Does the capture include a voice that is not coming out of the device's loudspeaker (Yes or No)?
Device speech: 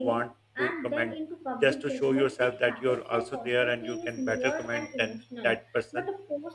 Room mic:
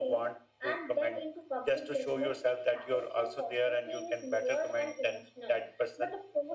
No